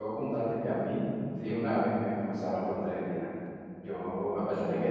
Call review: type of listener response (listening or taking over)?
listening